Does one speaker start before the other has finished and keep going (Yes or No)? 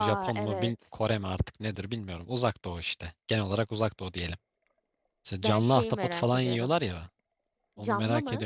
Yes